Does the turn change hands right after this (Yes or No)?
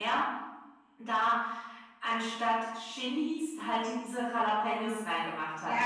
Yes